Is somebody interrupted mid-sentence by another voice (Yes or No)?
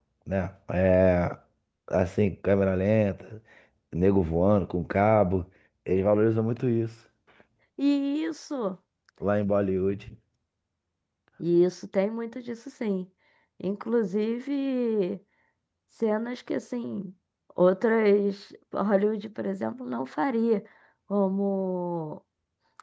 No